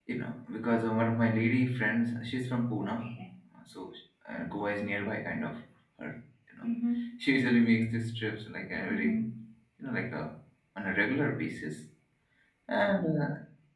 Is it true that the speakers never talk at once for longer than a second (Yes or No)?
Yes